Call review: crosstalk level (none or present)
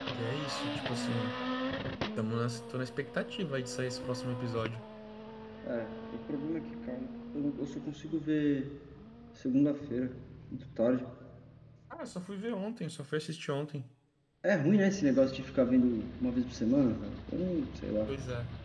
none